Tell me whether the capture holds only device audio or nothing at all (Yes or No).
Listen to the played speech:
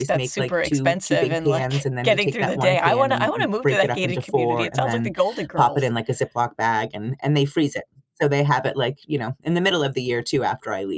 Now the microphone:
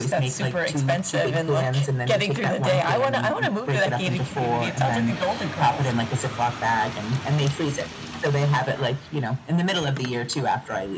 Yes